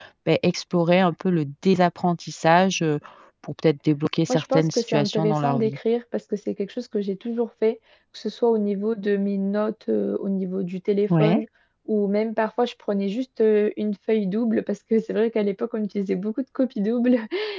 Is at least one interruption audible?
Yes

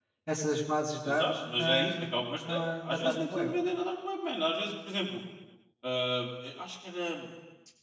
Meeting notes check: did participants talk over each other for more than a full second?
Yes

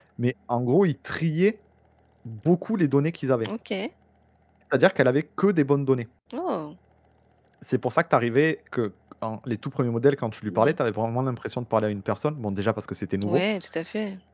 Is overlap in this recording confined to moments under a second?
Yes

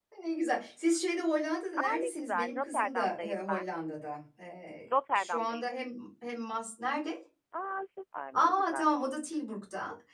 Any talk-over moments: Yes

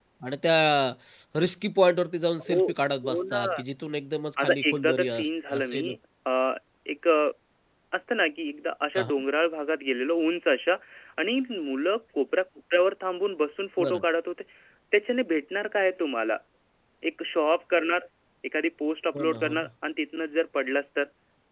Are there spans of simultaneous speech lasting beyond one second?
Yes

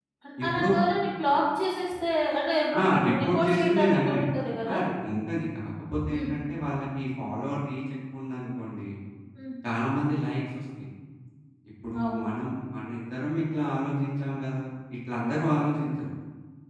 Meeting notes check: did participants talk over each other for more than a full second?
Yes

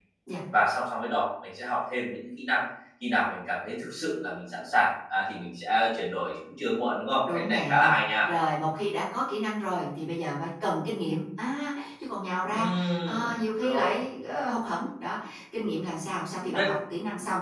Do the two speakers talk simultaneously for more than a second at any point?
Yes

